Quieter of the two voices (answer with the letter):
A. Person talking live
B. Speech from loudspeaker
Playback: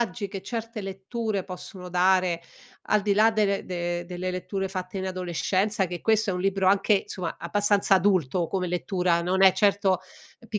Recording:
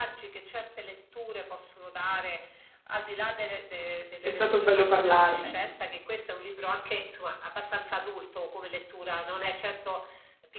B